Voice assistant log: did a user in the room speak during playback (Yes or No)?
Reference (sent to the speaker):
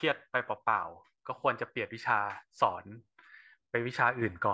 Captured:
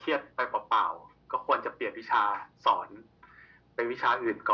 No